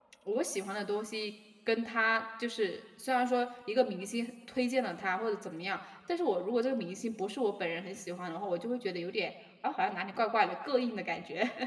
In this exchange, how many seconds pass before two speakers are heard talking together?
none

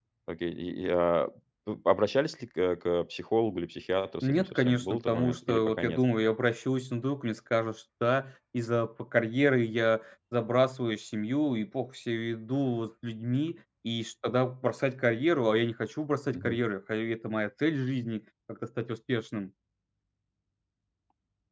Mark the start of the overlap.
4.2 s

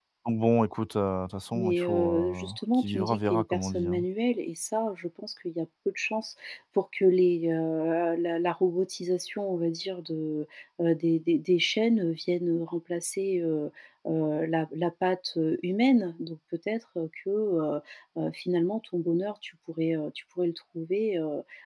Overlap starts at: 1.5 s

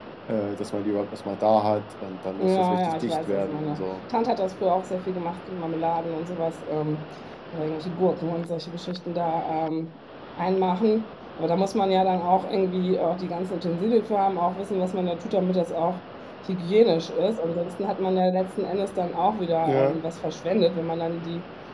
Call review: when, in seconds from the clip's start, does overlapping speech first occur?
2.4 s

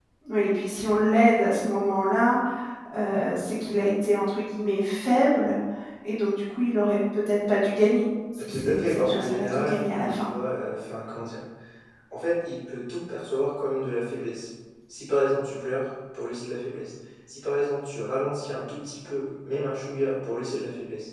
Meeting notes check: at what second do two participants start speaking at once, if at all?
8.4 s

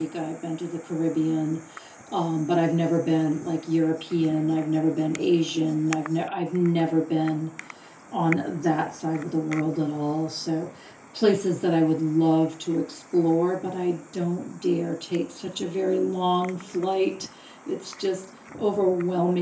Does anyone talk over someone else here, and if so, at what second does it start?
none

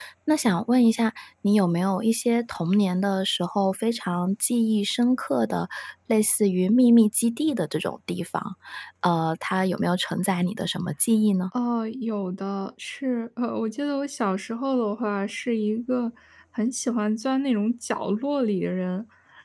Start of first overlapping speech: none

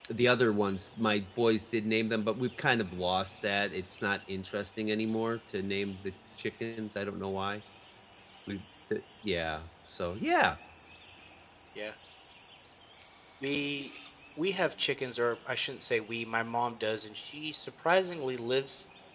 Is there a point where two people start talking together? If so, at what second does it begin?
none

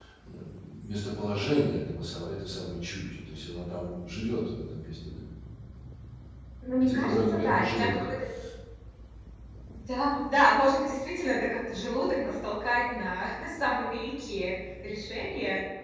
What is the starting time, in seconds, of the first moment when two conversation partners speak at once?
6.8 s

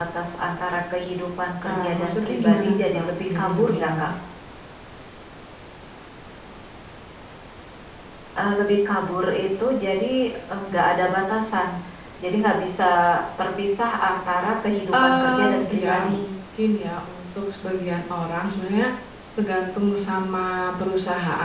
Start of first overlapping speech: 1.7 s

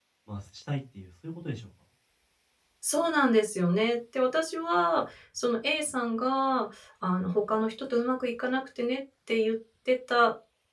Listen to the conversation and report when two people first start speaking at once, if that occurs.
none

